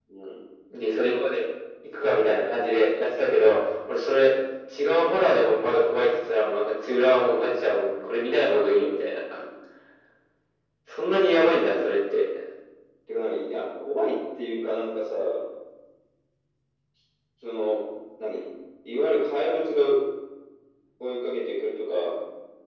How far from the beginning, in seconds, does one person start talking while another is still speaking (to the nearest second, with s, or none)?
none